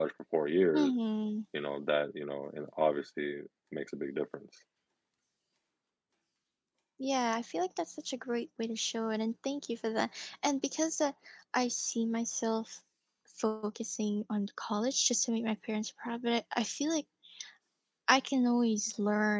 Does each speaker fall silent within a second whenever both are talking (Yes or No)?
Yes